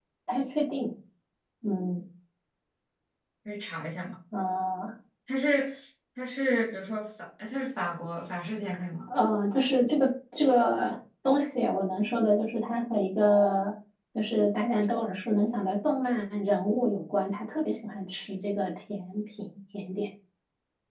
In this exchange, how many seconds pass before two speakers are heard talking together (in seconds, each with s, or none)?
none